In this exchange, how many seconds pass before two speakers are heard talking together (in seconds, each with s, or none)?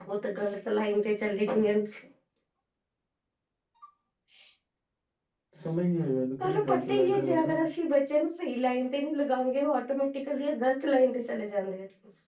6.4 s